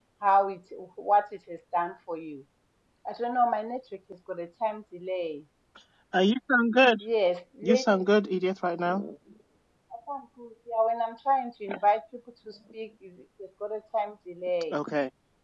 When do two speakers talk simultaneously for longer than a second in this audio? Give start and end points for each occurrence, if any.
none

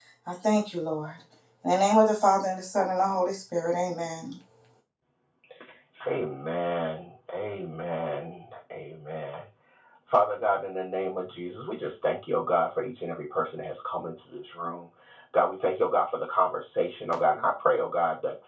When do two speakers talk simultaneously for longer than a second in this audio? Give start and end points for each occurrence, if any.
none

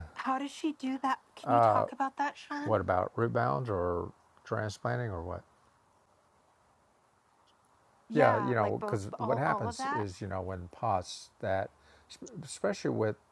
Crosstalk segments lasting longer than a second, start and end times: 8.1-10.1

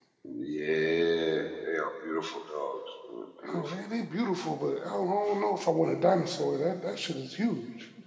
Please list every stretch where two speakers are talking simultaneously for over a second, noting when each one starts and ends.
none

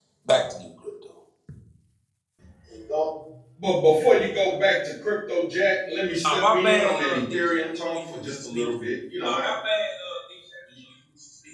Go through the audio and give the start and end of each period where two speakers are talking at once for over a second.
6.3-8.6

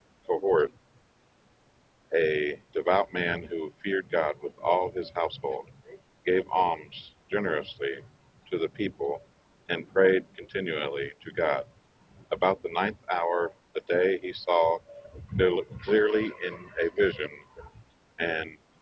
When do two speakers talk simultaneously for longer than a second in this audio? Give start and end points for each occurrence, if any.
none

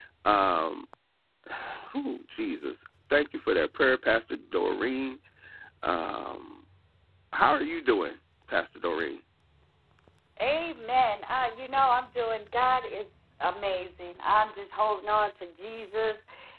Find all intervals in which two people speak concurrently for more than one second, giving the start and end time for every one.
none

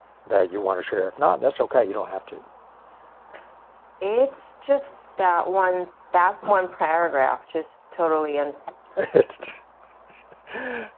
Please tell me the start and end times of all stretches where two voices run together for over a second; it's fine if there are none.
none

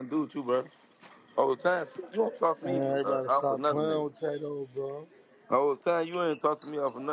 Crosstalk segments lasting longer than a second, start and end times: 2.7-4.1

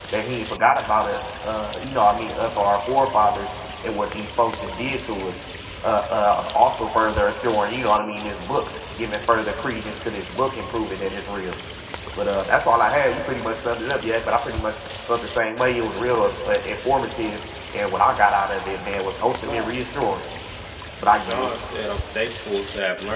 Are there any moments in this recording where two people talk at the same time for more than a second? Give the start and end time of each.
none

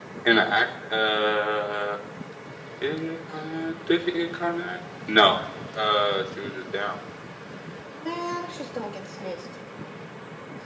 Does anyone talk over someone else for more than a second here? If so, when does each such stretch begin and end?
none

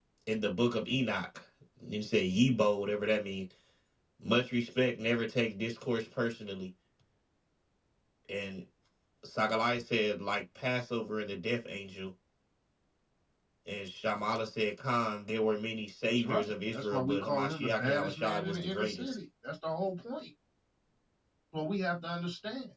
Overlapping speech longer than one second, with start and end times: 16.1-19.1

